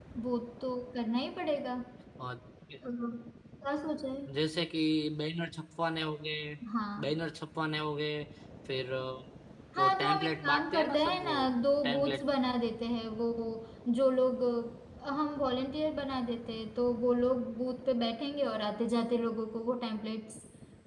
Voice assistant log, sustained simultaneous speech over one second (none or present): present